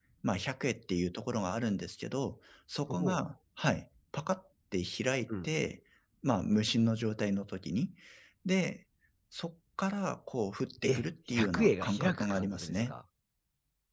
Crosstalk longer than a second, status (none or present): present